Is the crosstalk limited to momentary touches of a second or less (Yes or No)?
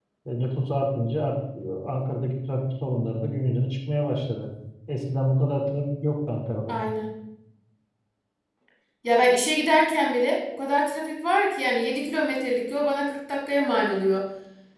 Yes